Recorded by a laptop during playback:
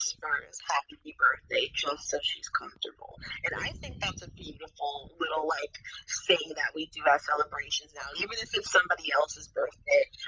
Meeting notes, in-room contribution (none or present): none